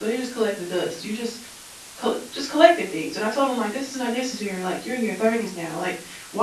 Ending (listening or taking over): listening